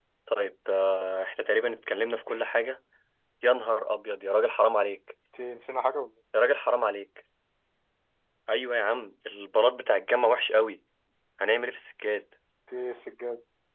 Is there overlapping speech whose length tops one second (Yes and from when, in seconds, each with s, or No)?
No